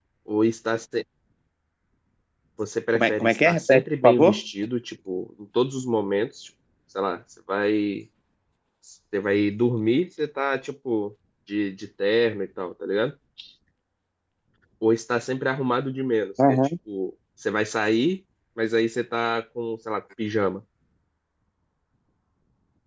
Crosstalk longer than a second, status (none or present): present